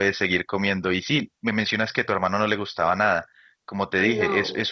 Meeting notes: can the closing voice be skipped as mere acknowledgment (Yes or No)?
Yes